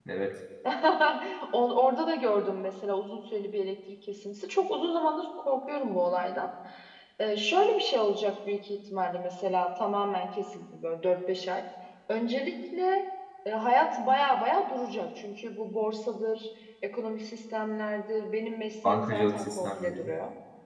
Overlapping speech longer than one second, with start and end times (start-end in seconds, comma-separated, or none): 18.8-20.0